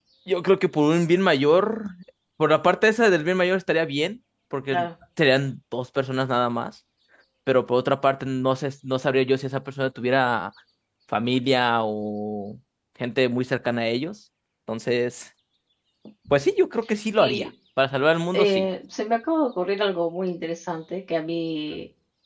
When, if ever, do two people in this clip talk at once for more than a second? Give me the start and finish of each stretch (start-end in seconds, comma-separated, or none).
none